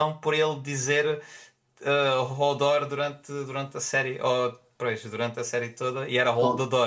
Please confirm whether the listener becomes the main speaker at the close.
Yes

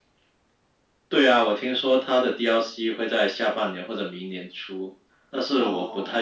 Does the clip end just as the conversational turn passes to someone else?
No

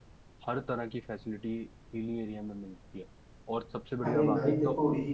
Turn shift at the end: Yes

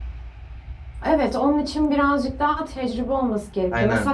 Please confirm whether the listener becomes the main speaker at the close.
No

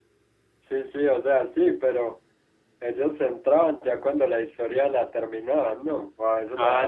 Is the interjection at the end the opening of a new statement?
Yes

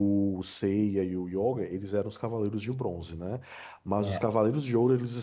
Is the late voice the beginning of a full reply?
No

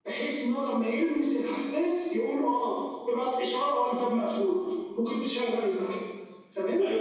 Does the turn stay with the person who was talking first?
No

